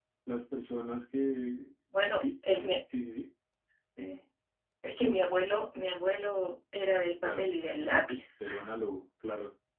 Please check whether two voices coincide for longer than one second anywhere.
No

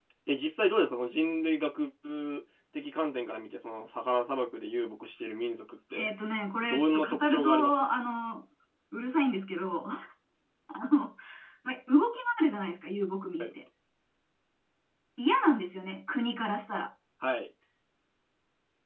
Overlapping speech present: Yes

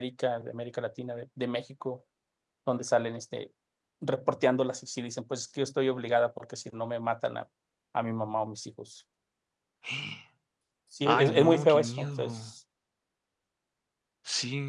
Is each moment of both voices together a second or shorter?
No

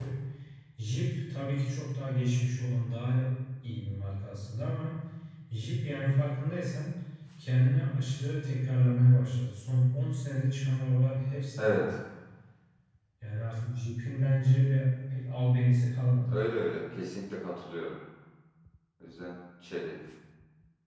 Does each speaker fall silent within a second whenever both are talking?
Yes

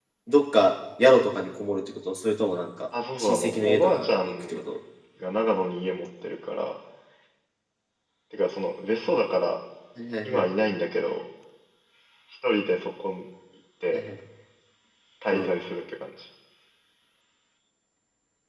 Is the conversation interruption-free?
No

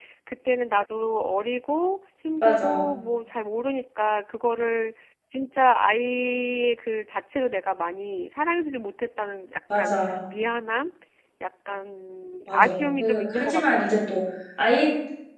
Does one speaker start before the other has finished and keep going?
Yes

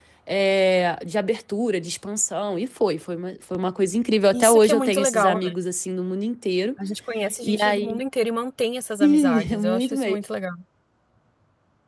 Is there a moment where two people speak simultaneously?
Yes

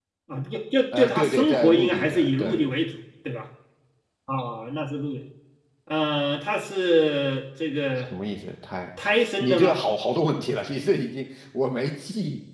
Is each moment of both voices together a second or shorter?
No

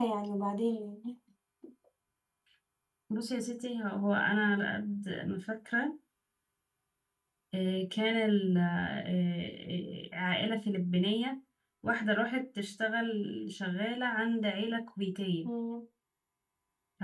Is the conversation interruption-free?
Yes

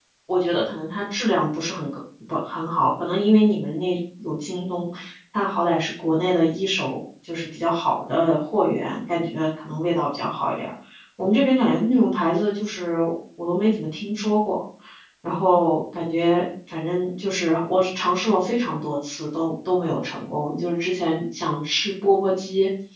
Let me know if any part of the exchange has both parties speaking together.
No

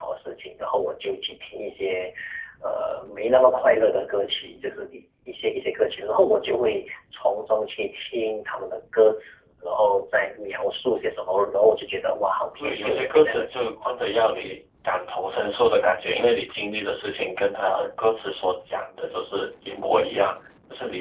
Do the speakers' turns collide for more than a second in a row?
Yes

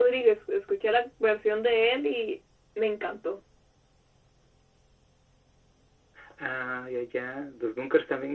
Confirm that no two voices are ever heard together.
Yes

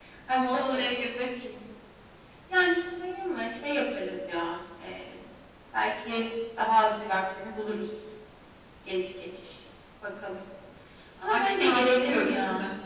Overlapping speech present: Yes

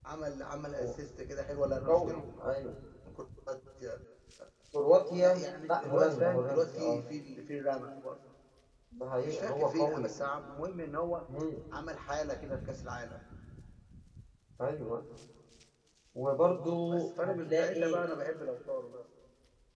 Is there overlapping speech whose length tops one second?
Yes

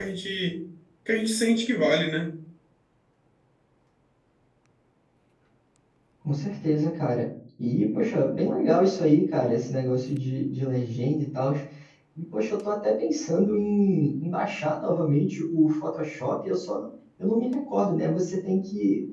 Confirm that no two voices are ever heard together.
Yes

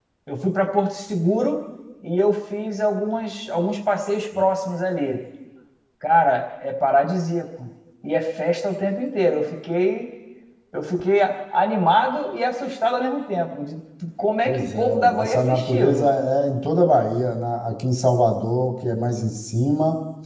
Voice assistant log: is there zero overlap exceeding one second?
No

